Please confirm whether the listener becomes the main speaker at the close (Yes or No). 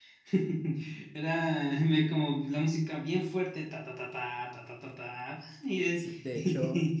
Yes